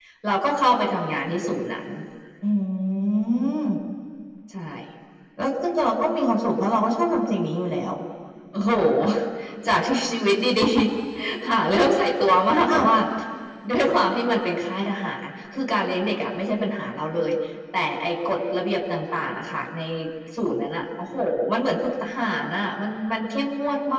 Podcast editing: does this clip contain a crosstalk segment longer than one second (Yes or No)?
No